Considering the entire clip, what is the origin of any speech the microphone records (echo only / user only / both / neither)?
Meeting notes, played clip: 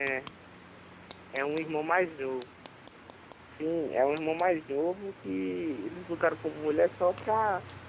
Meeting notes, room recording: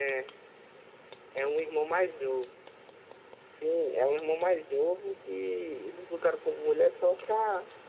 echo only